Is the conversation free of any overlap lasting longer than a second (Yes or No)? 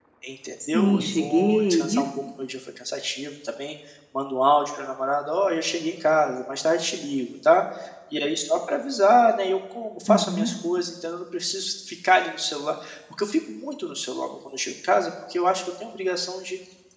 No